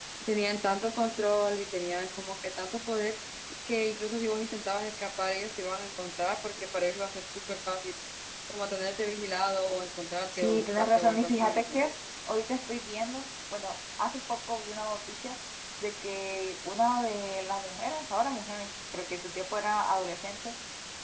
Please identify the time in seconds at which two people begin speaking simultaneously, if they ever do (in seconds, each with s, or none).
10.3 s